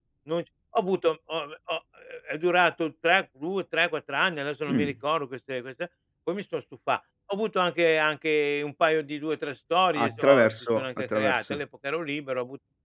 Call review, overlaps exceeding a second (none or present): present